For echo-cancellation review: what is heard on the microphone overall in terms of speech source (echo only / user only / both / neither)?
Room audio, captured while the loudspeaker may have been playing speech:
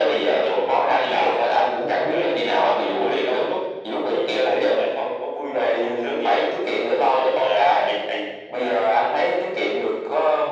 echo only